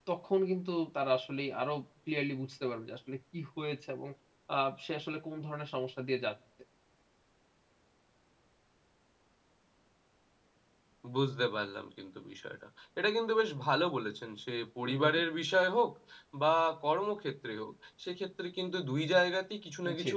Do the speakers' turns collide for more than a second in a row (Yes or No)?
No